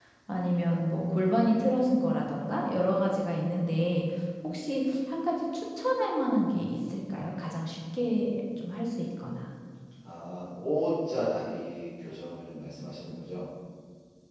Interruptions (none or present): none